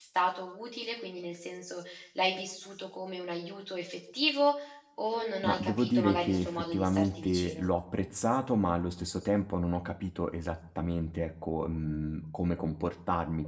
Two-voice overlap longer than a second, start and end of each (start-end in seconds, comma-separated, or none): 5.4-7.7